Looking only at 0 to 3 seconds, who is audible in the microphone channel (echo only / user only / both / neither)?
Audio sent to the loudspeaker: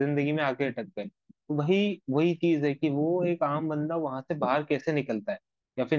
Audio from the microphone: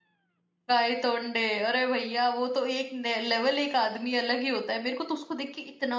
user only